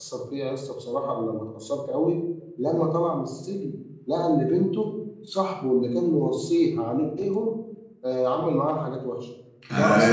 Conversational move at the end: taking over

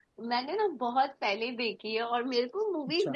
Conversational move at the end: listening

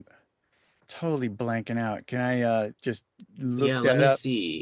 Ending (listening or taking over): taking over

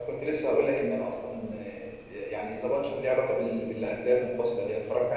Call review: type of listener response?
listening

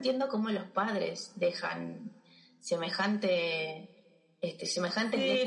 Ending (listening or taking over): taking over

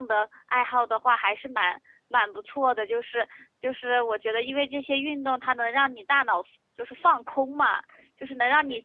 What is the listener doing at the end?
listening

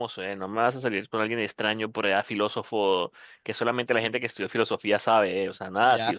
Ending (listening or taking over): taking over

